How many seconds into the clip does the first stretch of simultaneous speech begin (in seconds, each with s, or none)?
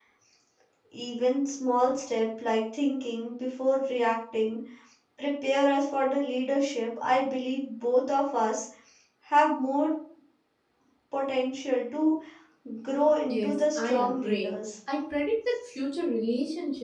13.3 s